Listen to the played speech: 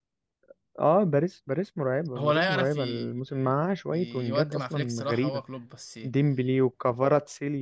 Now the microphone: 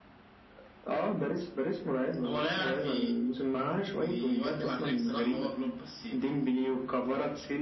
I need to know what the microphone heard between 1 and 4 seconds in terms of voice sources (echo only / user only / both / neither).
echo only